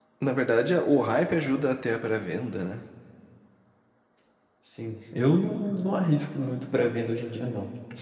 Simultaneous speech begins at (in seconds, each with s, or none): none